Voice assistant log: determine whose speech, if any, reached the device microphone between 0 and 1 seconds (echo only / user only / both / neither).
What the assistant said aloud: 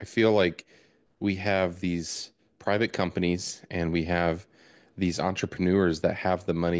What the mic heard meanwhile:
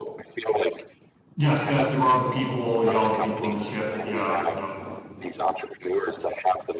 echo only